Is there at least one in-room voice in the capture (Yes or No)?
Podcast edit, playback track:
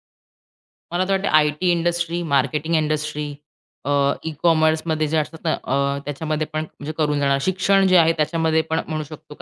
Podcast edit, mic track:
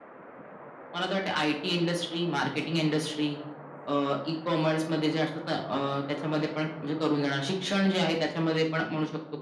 No